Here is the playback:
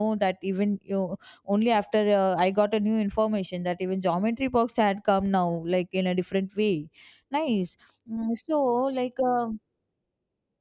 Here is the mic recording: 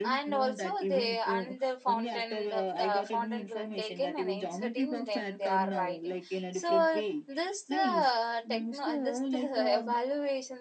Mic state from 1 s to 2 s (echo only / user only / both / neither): both